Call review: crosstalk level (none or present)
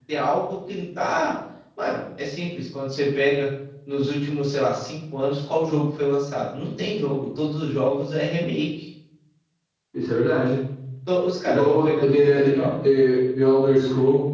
present